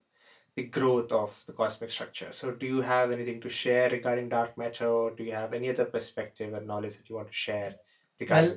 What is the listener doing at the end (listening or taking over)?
taking over